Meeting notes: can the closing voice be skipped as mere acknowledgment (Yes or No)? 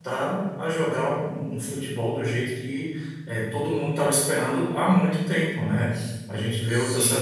Yes